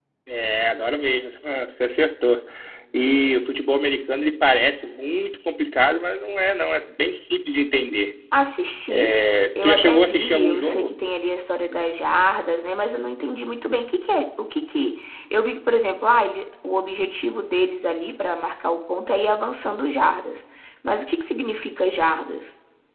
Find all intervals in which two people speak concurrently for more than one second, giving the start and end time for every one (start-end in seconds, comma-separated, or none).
9.6-10.9